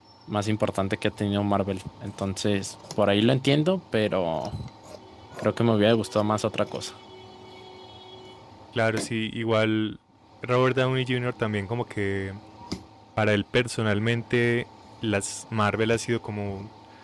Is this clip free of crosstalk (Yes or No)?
Yes